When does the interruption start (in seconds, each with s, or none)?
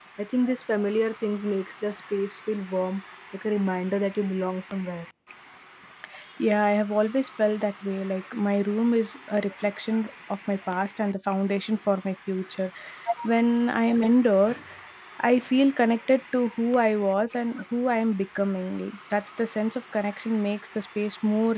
none